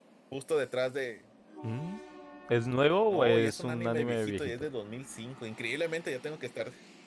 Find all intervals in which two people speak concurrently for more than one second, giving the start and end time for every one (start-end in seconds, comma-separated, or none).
3.1-4.7